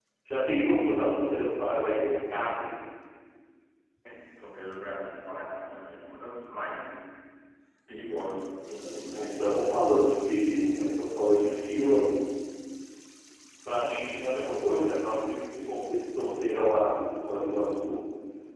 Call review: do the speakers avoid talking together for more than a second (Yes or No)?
Yes